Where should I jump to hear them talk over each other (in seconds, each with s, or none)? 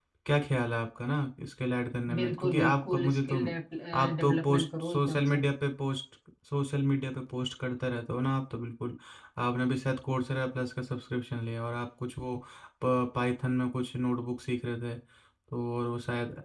2.1 s